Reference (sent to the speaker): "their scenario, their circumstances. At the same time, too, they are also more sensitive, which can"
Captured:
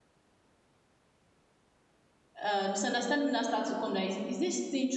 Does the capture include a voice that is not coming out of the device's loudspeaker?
Yes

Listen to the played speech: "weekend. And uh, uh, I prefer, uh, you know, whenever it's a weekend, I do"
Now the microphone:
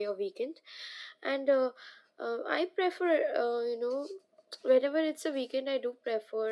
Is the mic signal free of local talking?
Yes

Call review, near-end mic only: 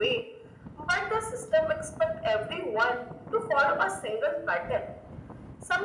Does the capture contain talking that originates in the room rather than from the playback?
No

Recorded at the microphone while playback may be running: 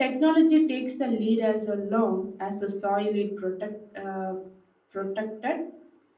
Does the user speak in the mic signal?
Yes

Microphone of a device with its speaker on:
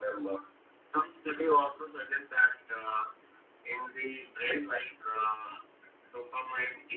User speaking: No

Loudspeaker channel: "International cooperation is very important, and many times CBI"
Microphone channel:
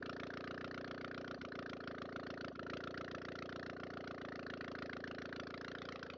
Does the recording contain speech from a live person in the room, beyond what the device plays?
No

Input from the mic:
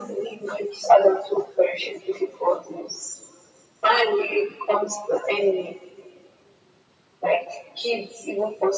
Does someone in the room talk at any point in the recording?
No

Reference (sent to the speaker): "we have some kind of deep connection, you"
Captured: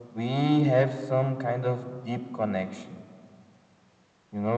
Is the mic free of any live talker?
Yes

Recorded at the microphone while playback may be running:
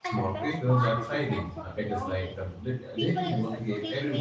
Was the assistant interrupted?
Yes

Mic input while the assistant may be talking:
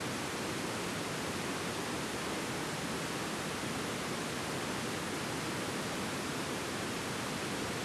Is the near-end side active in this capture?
No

